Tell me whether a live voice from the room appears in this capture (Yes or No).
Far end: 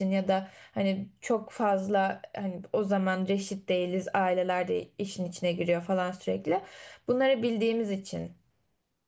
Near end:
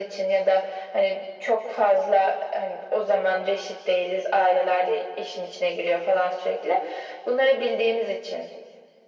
No